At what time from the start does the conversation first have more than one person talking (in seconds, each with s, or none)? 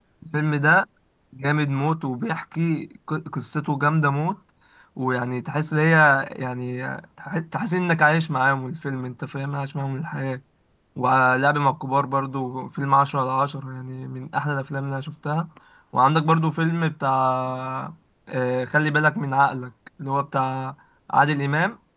none